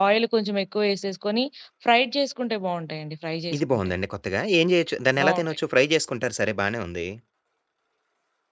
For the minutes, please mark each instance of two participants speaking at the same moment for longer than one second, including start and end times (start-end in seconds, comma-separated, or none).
none